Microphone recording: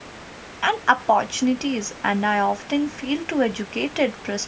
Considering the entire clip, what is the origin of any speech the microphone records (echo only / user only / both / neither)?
user only